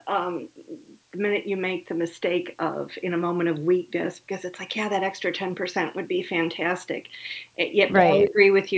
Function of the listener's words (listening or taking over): listening